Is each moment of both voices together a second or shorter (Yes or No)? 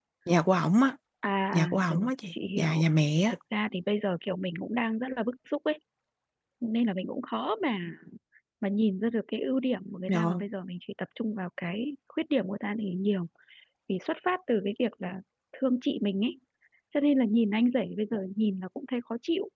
No